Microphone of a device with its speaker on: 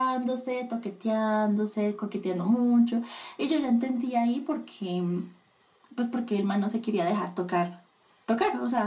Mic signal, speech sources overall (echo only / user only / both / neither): echo only